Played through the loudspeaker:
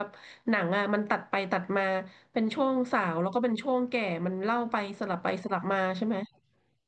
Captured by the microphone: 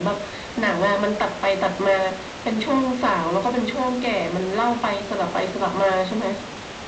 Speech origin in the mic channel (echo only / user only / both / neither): echo only